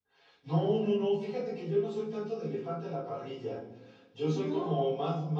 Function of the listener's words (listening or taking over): listening